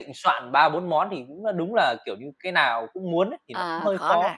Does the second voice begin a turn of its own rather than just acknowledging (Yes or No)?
Yes